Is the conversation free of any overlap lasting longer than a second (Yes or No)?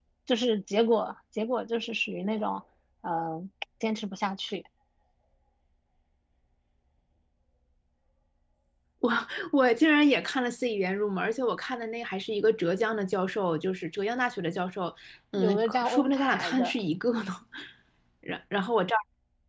No